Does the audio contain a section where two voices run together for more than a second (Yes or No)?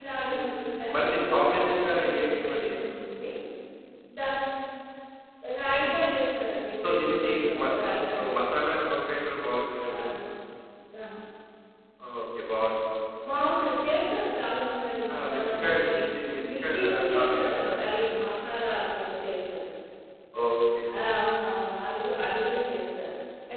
Yes